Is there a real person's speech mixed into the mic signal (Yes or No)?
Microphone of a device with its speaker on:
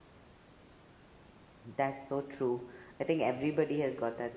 Yes